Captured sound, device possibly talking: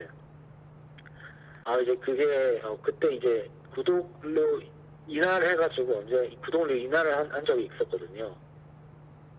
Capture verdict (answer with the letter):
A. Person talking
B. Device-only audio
B